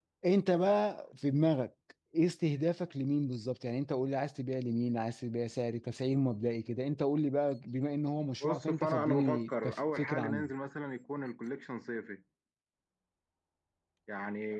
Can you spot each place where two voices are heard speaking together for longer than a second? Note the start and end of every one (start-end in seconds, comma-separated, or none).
8.4-10.4